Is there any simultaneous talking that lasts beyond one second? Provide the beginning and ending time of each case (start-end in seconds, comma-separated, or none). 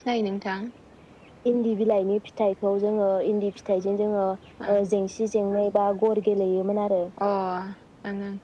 none